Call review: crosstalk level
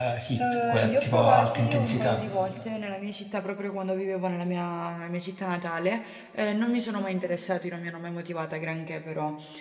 present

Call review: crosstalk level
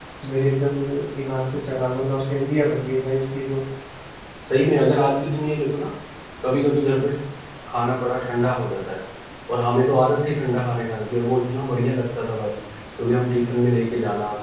none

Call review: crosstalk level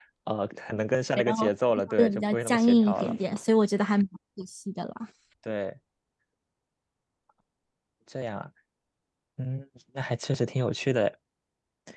present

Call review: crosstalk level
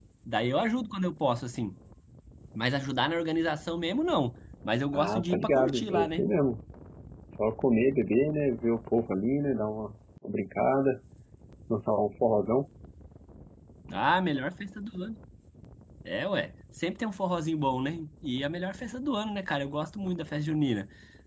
present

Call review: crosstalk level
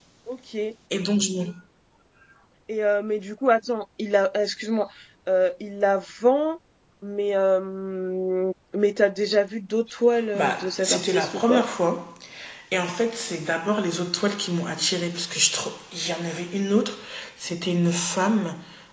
present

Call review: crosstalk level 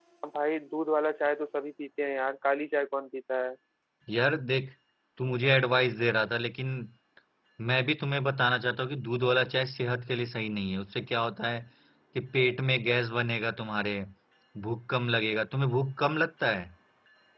none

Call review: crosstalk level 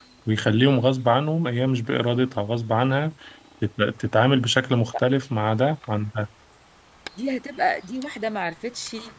none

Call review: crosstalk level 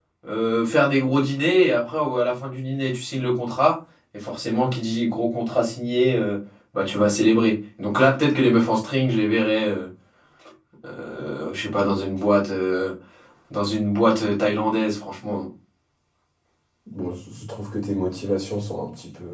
none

